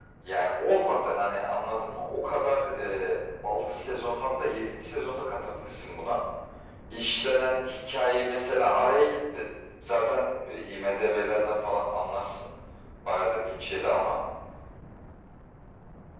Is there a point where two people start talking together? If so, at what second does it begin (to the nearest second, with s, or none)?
none